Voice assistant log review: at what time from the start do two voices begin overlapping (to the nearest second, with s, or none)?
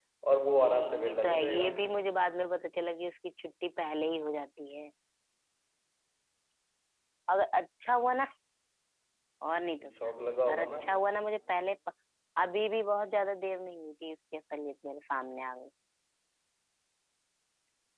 1 s